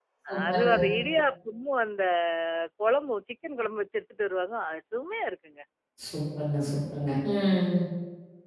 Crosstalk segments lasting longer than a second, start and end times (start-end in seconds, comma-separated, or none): none